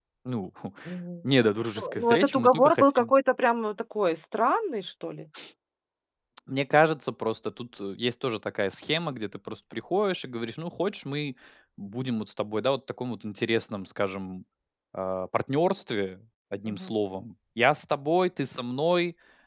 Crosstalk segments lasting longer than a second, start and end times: 1.8-3.1

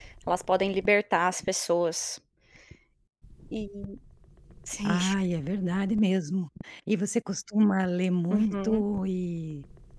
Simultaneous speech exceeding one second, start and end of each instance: none

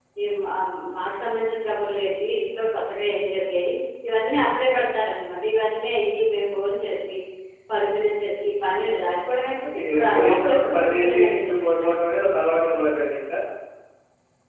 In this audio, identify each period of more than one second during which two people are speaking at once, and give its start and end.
9.7-11.8

